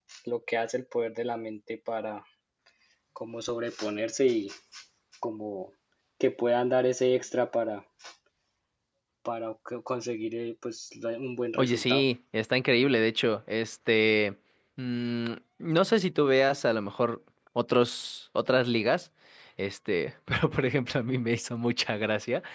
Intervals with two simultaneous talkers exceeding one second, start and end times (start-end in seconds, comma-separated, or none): none